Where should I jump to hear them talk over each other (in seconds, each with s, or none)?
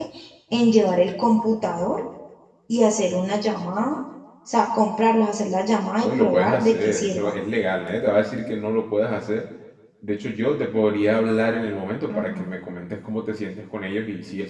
6.0 s